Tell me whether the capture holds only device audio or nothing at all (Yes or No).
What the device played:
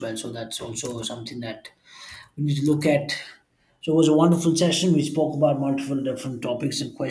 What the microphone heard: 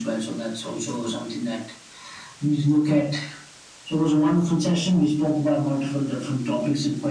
Yes